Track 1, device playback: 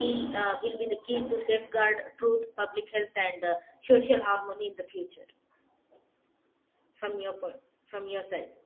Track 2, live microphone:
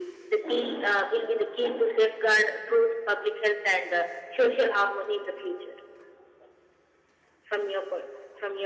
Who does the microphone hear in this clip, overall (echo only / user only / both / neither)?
echo only